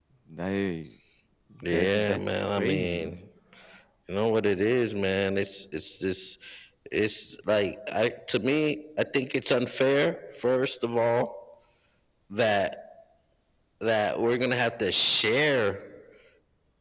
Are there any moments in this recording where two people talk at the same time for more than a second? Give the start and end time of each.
1.6-3.1

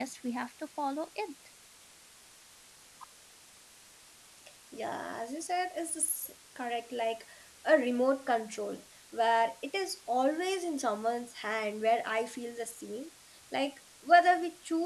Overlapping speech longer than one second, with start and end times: none

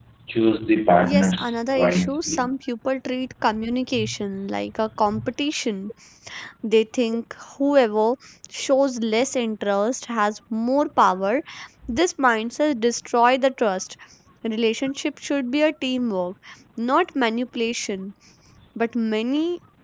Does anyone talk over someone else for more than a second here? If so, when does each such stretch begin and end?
1.0-2.4

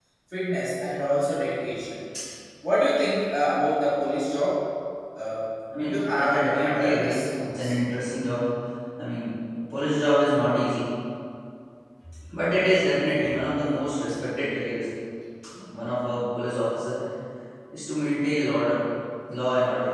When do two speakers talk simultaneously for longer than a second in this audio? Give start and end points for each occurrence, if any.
5.7-7.7

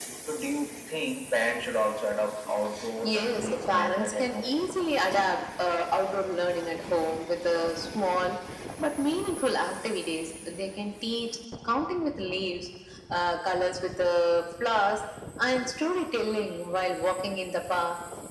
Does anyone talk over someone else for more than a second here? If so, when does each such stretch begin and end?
3.0-4.6

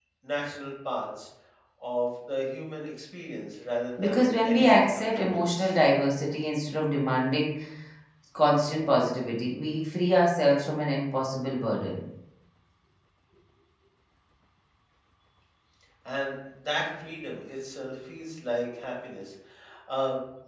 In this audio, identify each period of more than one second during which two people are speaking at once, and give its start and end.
4.0-5.7

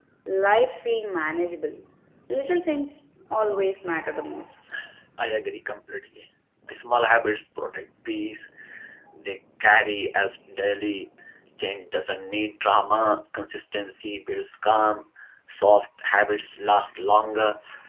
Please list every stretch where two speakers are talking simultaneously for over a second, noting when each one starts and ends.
none

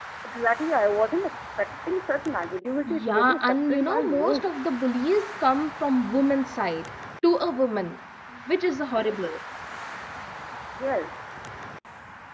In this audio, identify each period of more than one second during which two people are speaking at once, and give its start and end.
2.9-4.5

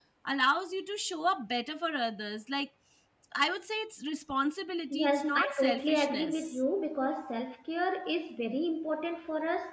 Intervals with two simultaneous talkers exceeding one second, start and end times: 4.9-6.6

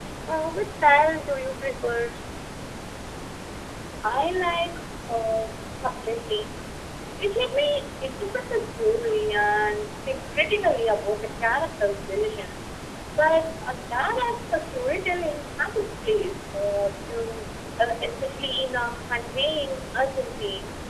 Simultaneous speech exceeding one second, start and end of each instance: none

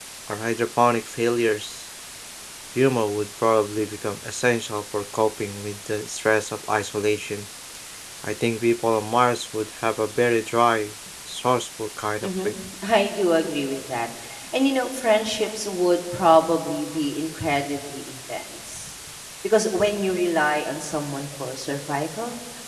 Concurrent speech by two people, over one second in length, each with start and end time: none

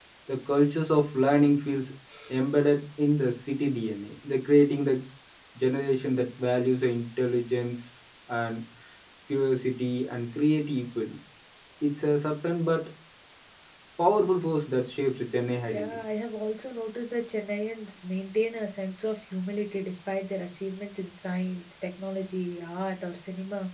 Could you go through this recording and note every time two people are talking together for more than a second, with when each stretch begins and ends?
none

